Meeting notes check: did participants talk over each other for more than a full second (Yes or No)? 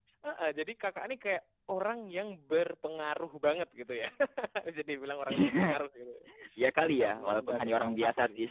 Yes